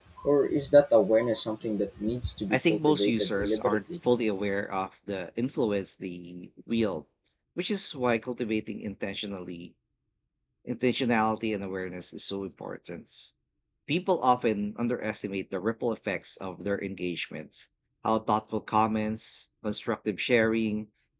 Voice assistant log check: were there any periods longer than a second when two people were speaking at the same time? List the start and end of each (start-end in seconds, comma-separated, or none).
2.5-3.8